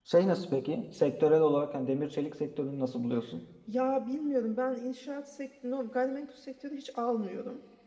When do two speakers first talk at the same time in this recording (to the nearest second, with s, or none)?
none